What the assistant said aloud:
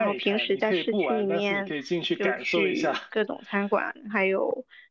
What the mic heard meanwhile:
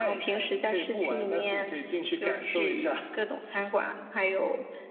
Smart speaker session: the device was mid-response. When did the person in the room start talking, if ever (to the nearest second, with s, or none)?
none